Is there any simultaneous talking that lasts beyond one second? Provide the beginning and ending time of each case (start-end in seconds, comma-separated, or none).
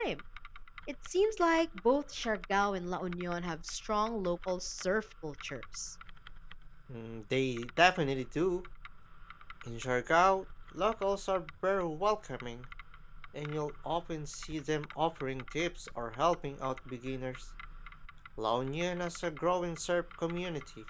none